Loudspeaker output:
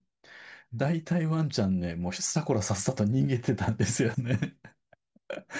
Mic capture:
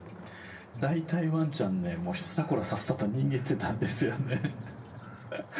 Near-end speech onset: none

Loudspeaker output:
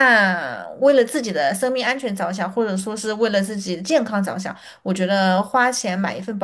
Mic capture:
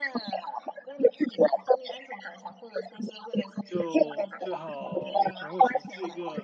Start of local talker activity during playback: 3.6 s

